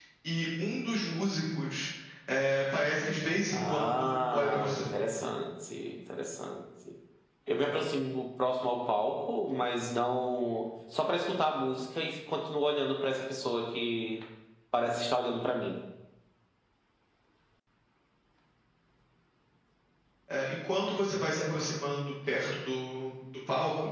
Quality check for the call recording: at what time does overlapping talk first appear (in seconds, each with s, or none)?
3.5 s